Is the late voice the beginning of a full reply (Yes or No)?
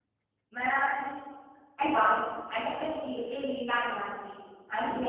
No